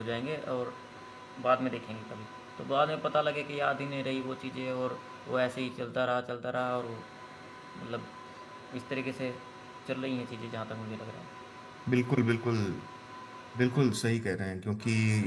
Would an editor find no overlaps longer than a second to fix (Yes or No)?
Yes